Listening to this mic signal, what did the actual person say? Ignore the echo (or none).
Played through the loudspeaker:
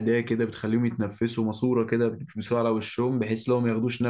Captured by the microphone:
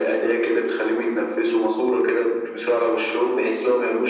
none